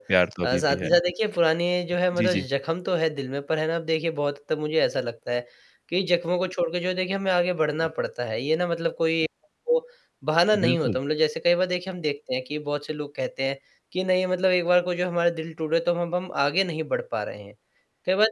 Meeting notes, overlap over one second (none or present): none